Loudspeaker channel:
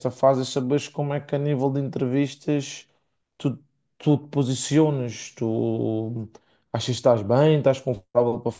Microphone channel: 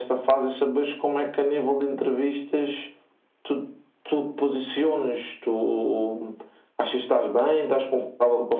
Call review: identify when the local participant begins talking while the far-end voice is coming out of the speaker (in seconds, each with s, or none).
none